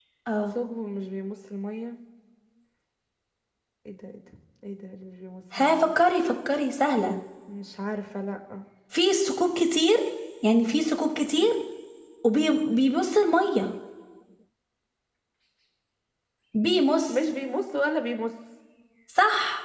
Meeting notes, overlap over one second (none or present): none